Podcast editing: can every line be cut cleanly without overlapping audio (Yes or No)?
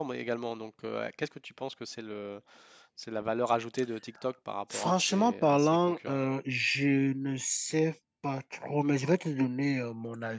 No